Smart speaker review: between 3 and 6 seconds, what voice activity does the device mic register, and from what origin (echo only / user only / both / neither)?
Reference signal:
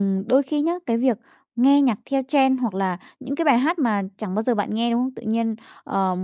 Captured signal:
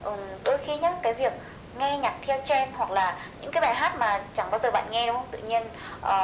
echo only